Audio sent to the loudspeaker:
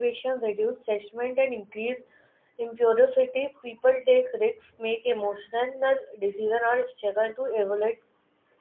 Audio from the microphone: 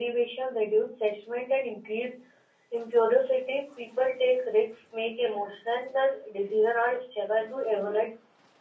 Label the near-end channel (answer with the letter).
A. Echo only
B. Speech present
A